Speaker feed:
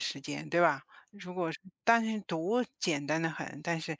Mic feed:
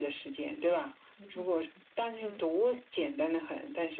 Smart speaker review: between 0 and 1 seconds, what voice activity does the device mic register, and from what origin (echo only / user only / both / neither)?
echo only